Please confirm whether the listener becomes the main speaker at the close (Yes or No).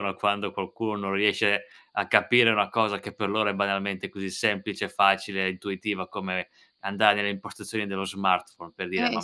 No